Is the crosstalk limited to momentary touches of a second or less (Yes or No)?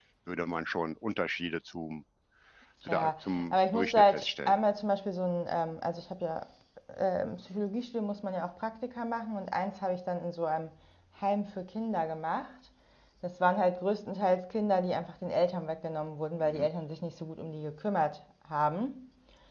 No